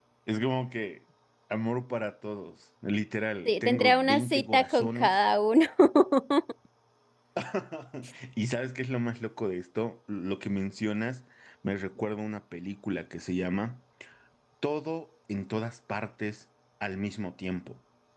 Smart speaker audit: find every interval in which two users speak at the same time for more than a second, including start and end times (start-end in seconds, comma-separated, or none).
3.5-5.2